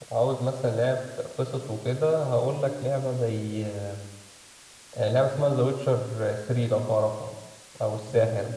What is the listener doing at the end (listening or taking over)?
taking over